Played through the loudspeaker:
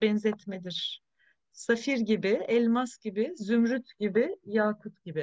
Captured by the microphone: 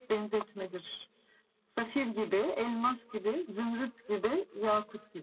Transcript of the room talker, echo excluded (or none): none